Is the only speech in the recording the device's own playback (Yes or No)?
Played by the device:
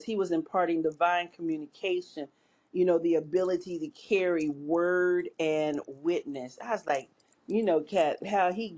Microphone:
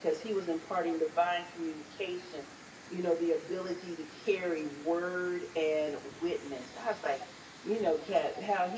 Yes